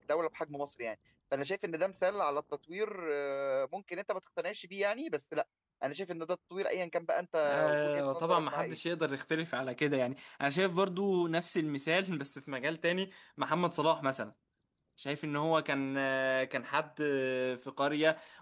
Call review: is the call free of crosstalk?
No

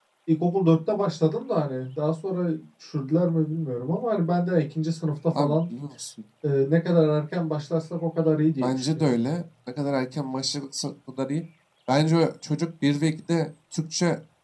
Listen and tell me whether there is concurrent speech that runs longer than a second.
No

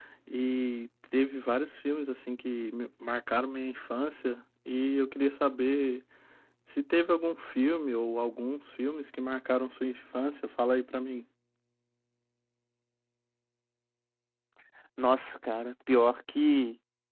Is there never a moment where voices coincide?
Yes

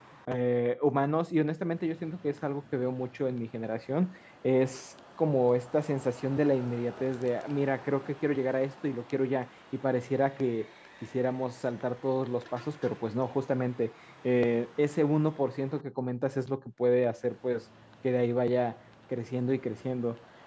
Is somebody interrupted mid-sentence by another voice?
No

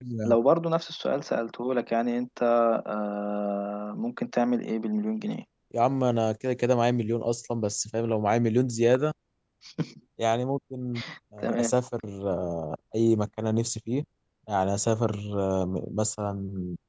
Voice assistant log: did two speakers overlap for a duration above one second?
No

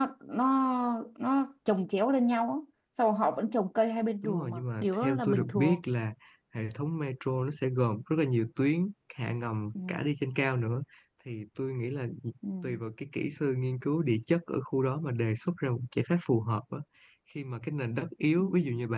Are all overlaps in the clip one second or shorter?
No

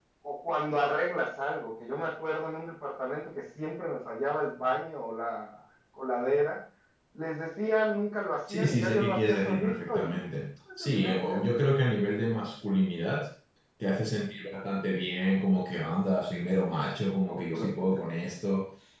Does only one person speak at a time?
No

